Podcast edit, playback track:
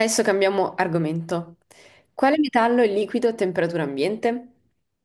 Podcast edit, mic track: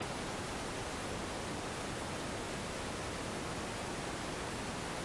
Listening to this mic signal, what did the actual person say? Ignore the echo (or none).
none